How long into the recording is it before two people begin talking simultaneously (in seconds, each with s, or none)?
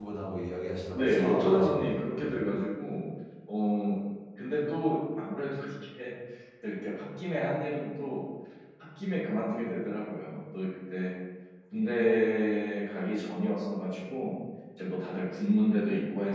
0.9 s